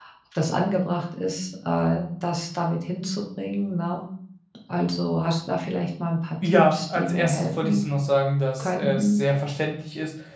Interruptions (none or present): present